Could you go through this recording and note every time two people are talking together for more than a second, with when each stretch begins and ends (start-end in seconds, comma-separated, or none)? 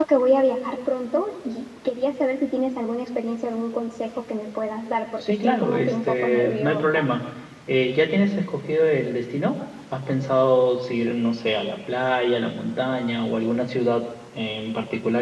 5.2-7.1